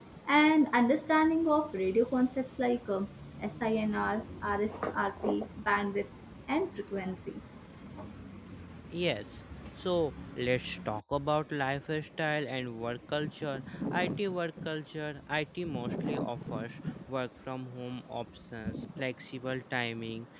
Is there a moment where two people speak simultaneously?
No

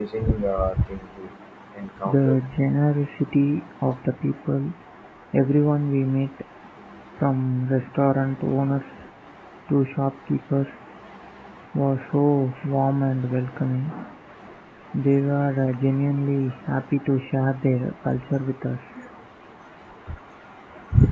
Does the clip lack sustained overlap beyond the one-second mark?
Yes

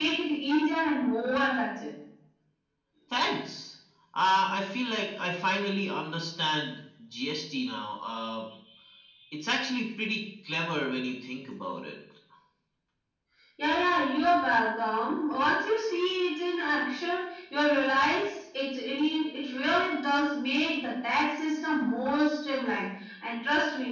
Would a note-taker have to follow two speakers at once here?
No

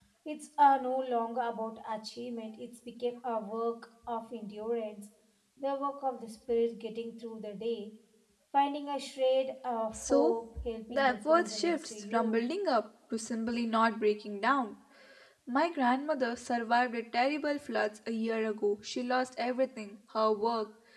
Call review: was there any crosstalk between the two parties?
Yes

